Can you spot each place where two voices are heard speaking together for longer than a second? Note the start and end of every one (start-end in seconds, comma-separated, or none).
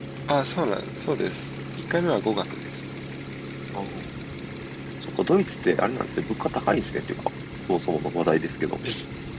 none